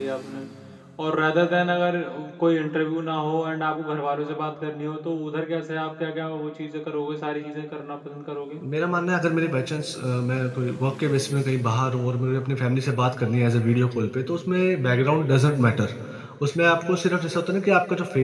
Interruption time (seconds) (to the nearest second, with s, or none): none